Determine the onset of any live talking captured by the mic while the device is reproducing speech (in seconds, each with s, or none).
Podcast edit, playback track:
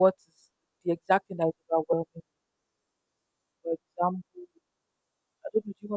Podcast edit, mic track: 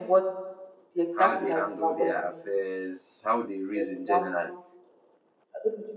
1.1 s